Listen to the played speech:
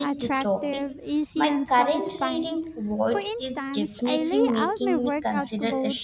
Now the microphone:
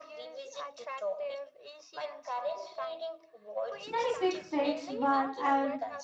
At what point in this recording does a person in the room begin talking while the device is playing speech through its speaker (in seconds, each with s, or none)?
3.7 s